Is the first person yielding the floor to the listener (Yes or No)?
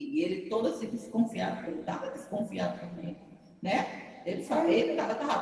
No